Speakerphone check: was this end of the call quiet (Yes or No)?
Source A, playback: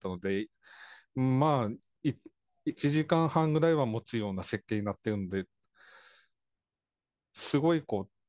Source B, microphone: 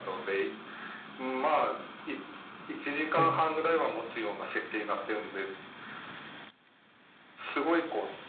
No